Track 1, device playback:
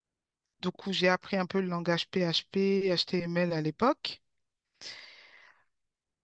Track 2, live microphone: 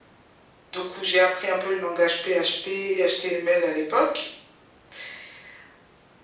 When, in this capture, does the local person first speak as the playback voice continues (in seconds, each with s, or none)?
none